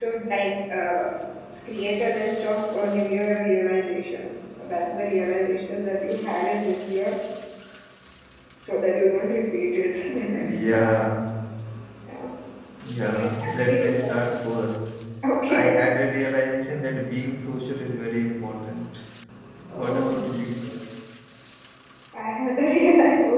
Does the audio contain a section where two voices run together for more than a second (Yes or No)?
Yes